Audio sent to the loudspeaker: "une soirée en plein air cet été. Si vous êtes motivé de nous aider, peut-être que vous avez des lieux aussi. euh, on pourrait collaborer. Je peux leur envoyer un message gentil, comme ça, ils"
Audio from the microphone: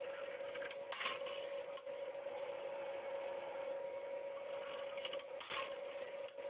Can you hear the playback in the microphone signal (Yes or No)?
No